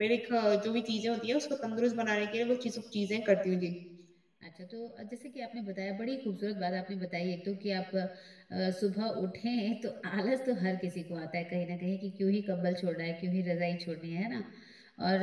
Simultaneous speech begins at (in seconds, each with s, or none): none